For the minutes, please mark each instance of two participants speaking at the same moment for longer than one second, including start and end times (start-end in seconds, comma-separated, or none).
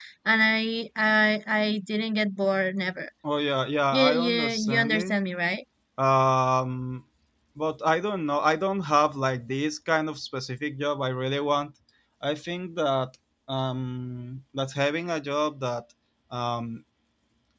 3.9-5.1